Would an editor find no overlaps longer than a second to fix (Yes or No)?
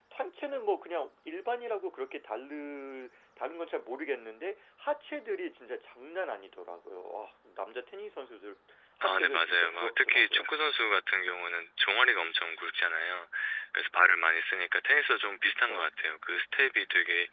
No